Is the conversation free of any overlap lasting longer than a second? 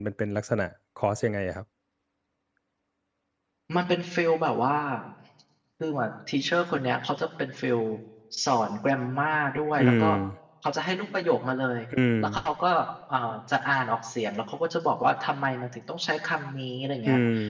Yes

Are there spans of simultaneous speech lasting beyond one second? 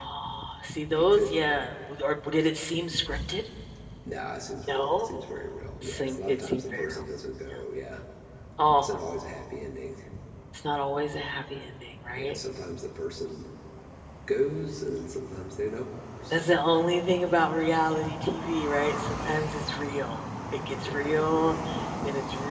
Yes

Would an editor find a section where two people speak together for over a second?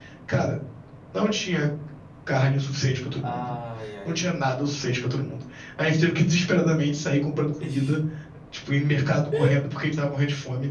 No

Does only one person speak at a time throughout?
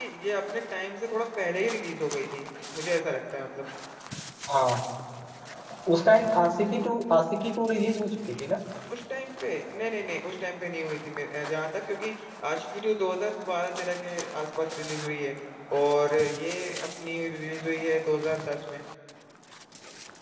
Yes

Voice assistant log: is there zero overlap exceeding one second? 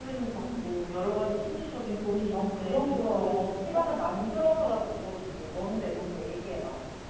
No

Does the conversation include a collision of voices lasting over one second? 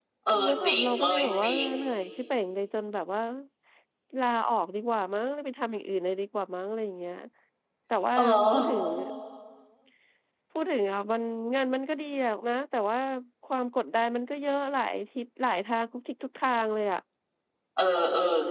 Yes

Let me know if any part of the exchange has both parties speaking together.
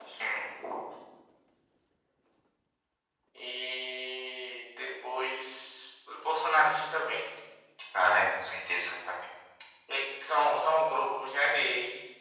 No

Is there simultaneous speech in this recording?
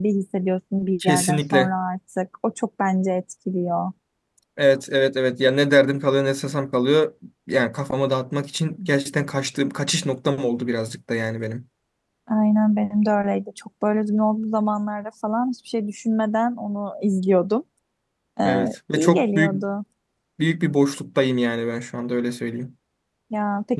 Yes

